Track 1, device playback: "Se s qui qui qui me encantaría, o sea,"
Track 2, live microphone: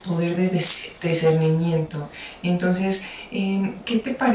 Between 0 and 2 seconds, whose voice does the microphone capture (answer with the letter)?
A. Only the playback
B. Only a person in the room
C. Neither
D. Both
B